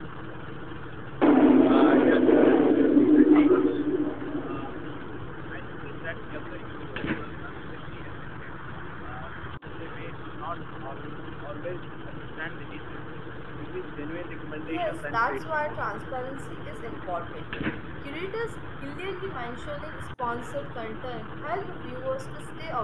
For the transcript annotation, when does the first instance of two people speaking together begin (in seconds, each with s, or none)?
14.6 s